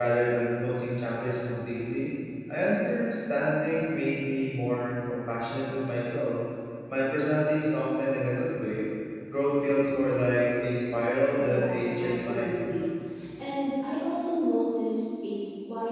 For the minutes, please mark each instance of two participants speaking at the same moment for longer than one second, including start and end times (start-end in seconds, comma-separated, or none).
11.3-12.7